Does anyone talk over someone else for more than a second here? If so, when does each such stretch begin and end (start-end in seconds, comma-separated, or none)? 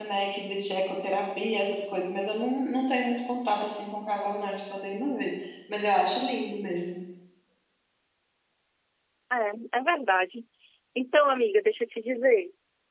none